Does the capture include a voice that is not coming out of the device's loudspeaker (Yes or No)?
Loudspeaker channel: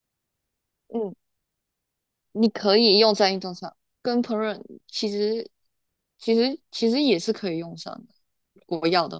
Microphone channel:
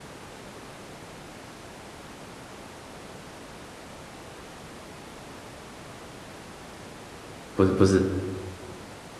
Yes